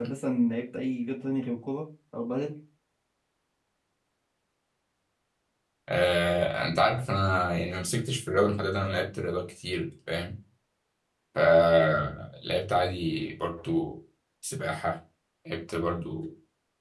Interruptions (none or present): none